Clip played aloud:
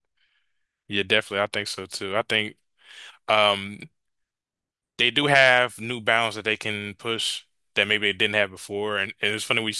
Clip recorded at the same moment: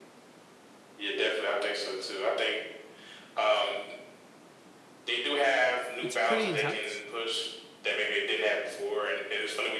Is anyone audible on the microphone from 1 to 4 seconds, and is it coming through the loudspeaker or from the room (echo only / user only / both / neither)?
echo only